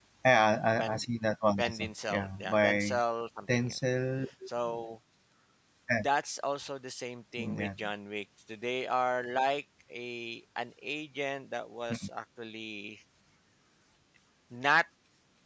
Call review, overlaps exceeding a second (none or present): present